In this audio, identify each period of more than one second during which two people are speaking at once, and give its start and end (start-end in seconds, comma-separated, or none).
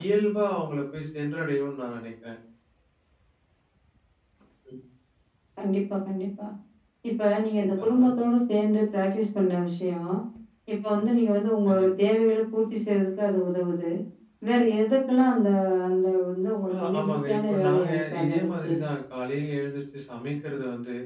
16.7-18.7